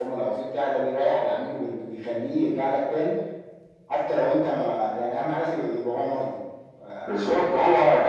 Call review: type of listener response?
taking over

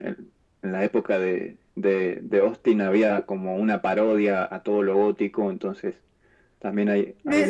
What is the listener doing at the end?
taking over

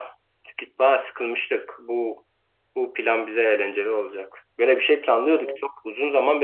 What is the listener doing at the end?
listening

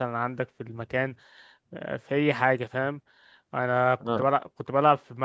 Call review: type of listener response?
listening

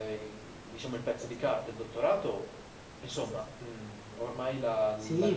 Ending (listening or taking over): taking over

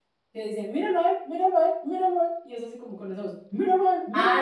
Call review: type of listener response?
taking over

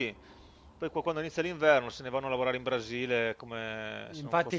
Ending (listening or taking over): taking over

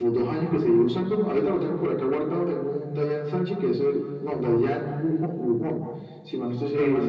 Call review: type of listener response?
listening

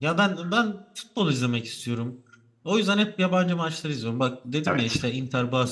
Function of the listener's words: listening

